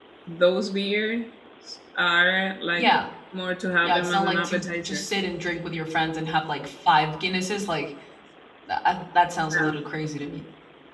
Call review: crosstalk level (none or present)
present